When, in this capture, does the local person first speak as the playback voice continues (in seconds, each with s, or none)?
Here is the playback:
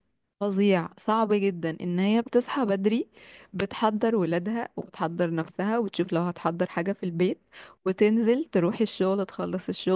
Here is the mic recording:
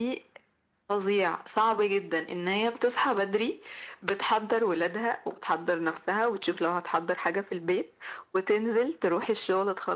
none